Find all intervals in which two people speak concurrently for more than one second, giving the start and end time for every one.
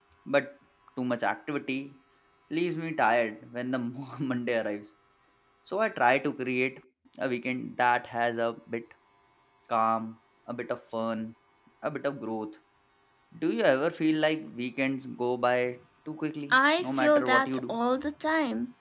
16.5-17.8

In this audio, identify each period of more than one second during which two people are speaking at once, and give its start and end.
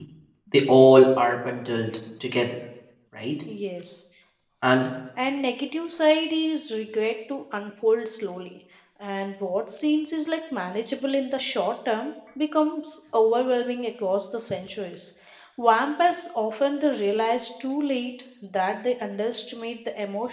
none

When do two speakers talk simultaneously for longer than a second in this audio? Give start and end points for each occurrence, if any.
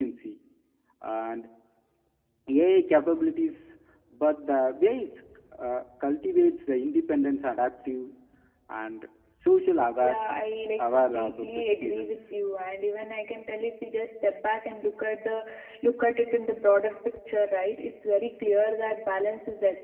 10.8-12.1

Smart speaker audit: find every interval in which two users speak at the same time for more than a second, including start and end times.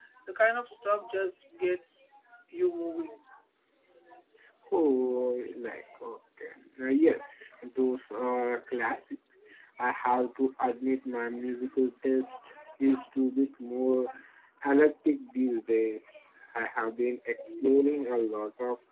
none

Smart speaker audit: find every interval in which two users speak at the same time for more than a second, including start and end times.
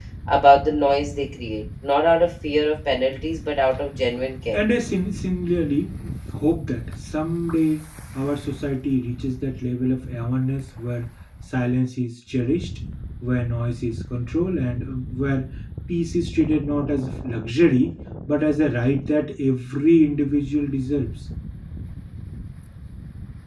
none

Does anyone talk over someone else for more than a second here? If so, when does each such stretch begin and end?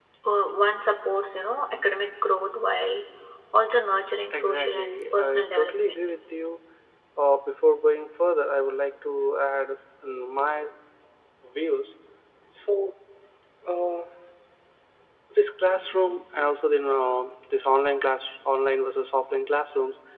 4.3-6.1

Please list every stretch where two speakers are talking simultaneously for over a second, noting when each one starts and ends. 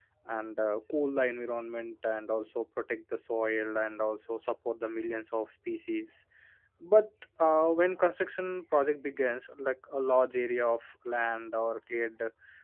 none

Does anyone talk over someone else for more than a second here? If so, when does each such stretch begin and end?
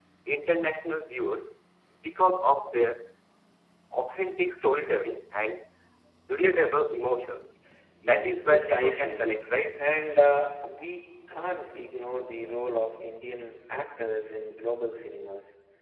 8.0-9.3

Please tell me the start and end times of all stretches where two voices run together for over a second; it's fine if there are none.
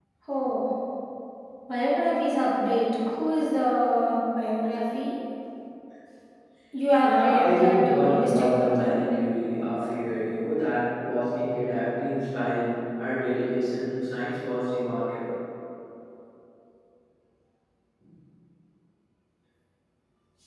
7.0-8.9

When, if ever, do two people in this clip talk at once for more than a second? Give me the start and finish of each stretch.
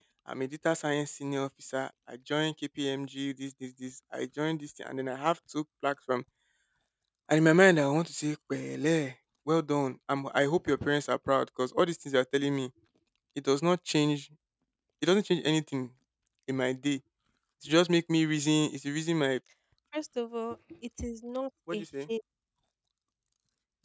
none

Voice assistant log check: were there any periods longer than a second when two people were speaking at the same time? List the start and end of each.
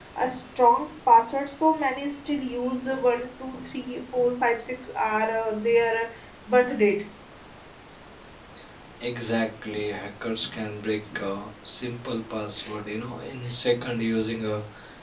none

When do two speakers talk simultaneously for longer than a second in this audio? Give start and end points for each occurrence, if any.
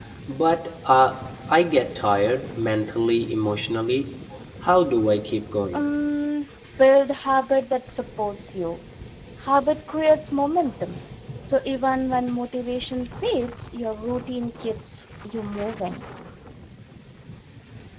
none

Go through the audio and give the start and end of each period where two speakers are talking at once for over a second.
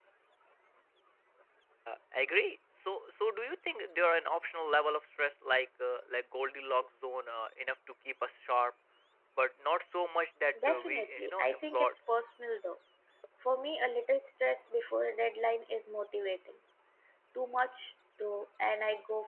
10.7-11.9

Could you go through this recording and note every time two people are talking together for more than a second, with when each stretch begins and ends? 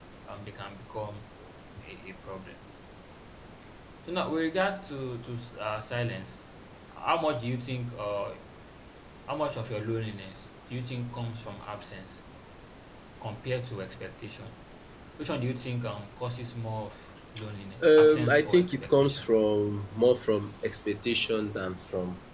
17.8-19.3

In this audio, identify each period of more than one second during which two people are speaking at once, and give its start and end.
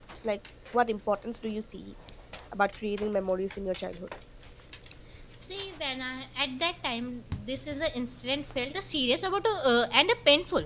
none

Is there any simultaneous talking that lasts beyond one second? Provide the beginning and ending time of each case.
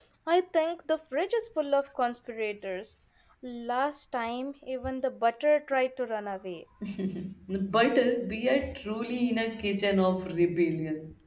none

